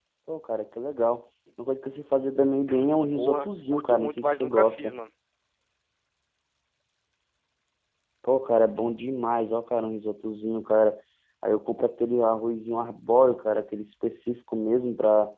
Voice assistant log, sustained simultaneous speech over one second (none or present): present